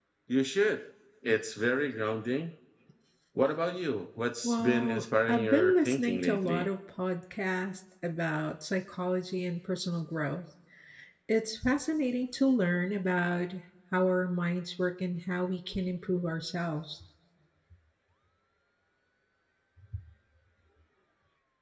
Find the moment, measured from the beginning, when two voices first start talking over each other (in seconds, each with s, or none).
4.4 s